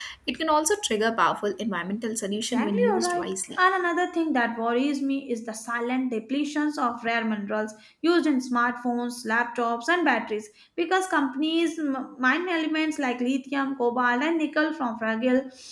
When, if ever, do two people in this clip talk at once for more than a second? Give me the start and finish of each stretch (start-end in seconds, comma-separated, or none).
2.3-3.6